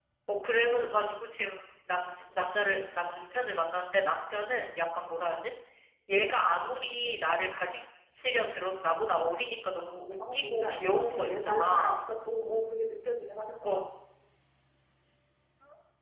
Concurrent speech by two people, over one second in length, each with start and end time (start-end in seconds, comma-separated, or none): 10.3-12.1